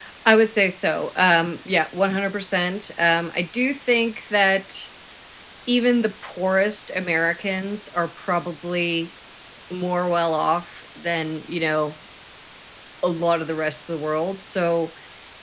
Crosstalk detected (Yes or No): No